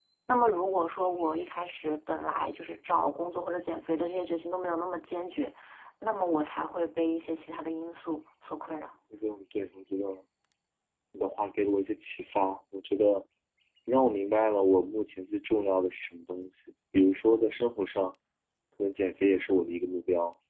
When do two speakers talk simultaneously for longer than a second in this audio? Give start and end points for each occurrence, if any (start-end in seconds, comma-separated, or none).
none